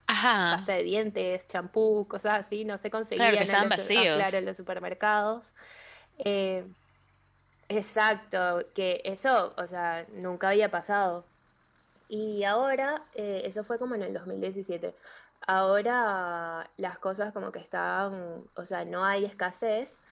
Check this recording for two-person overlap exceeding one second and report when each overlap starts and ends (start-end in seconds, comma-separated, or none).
3.1-4.4